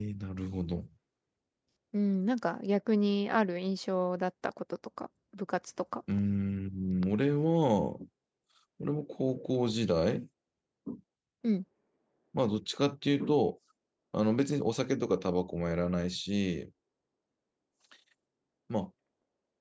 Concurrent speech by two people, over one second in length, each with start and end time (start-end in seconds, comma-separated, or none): none